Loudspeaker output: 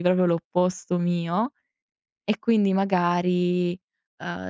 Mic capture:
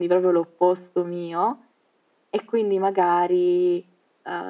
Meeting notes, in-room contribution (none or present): none